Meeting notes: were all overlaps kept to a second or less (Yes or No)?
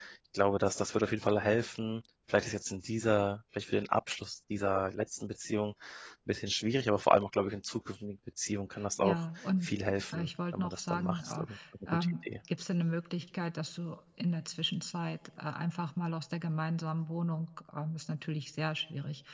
No